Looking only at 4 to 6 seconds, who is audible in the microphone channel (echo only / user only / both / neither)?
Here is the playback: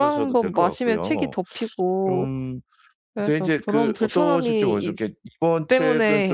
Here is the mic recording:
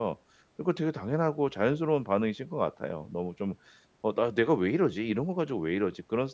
user only